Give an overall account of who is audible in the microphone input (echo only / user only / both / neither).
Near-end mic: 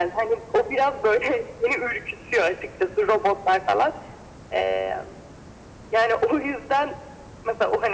echo only